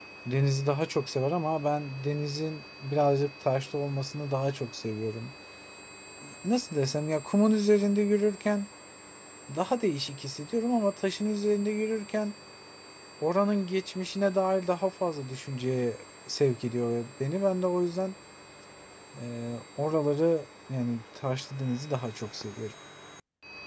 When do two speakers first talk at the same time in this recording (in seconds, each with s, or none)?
none